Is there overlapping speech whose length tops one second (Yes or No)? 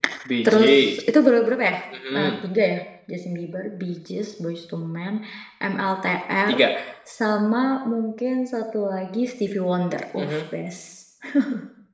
No